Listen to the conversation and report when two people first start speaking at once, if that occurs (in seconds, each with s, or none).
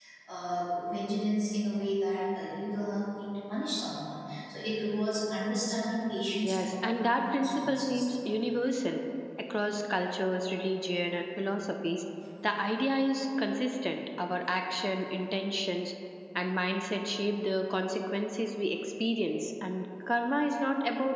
6.4 s